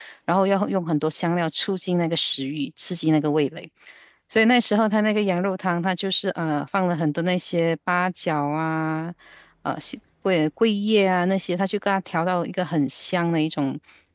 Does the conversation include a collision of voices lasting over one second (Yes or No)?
No